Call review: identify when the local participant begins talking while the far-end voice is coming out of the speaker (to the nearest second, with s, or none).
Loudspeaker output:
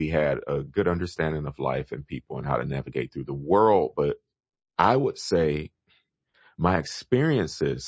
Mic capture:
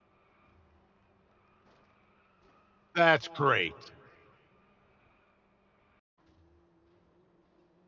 3 s